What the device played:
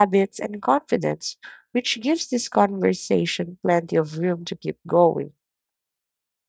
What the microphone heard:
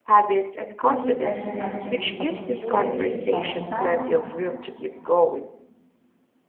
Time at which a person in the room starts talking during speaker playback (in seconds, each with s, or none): 0.8 s